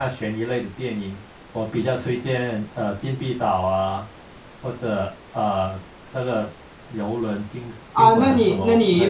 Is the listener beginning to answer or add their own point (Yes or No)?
Yes